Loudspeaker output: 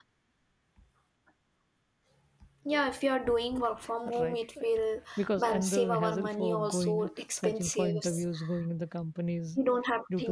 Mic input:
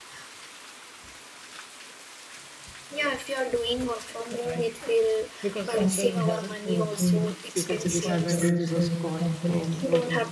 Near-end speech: present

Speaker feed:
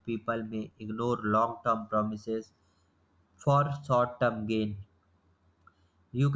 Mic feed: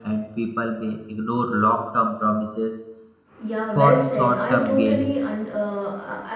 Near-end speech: present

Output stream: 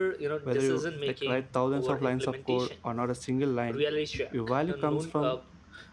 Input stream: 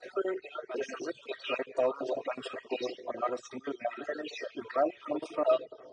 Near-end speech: none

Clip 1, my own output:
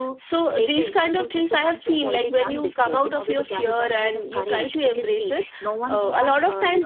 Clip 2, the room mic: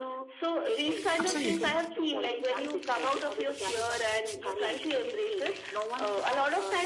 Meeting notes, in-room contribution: present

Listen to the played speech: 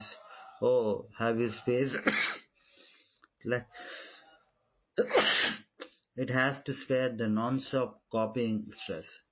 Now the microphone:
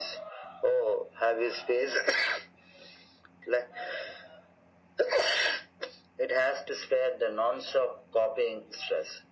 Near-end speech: none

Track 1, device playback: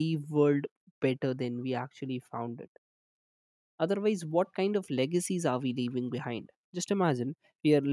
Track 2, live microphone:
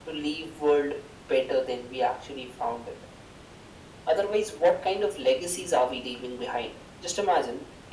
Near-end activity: none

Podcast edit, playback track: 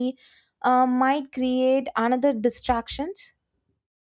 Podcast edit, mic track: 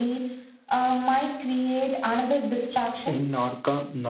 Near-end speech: present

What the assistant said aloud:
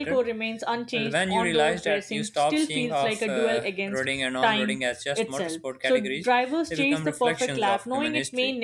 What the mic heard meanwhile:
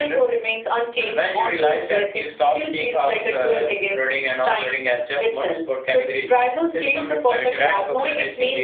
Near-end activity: present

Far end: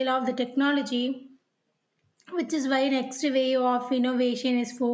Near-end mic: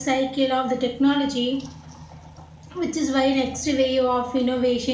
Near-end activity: none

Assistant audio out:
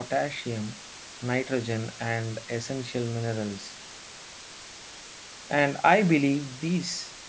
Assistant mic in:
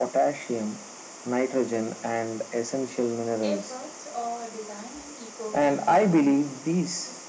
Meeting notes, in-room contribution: present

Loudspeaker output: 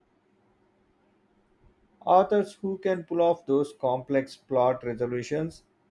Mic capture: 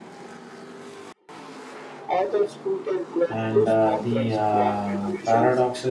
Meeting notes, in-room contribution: present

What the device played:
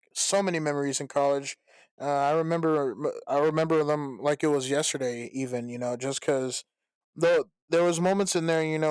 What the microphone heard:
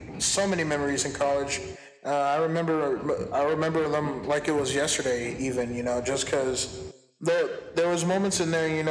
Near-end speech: none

